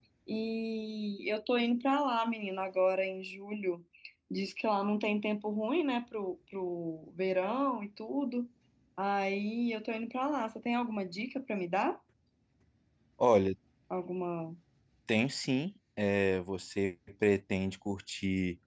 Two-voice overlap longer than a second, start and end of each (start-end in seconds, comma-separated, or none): none